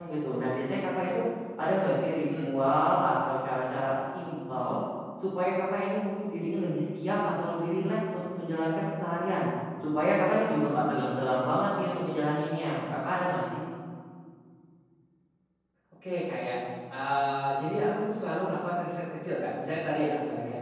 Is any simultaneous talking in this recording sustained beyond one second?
No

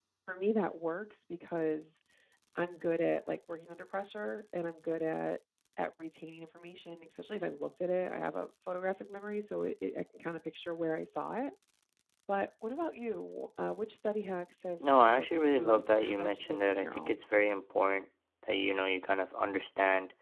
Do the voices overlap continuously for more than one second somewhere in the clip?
Yes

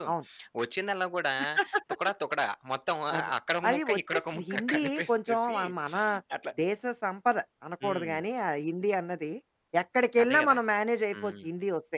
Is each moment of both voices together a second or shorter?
No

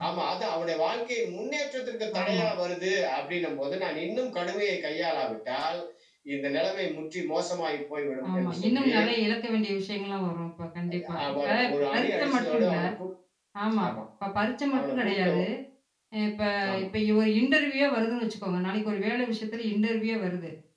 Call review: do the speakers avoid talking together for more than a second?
No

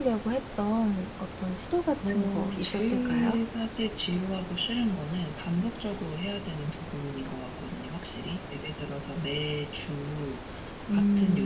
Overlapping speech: Yes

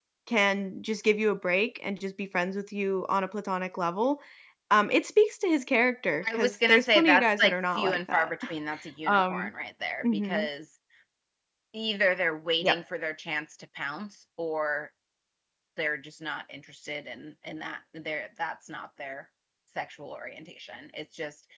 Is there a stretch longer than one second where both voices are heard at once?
Yes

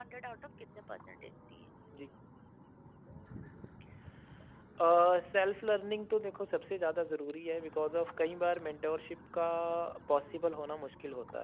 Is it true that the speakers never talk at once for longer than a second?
Yes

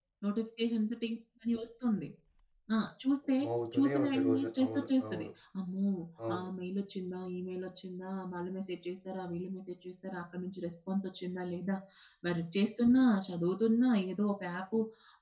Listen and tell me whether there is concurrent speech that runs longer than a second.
Yes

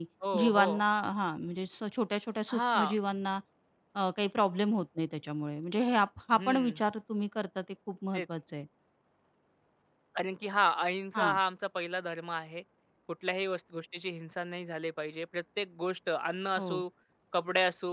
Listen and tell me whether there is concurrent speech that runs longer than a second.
No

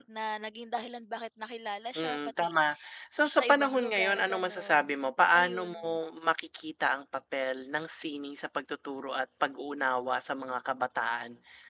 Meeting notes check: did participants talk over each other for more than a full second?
Yes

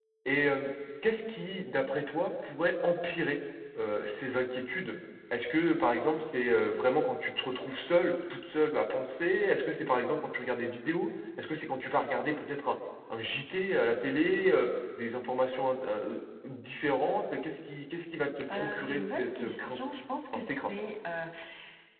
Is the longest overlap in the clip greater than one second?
Yes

